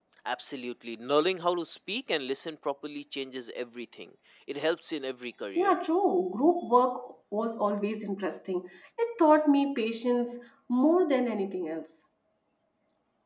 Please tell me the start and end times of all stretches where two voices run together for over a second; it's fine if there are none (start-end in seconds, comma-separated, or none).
none